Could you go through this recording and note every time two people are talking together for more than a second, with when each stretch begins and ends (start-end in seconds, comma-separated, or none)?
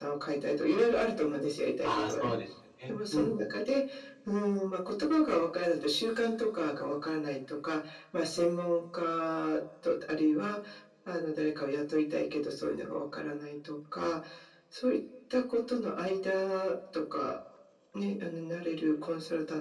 none